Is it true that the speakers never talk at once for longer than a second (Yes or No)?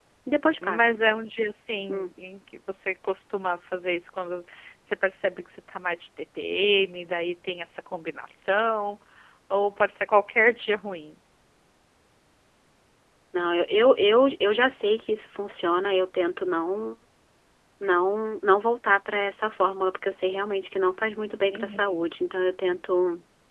Yes